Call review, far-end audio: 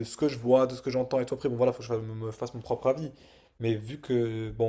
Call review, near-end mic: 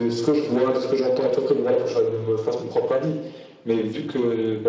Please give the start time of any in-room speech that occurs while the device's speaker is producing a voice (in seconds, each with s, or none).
none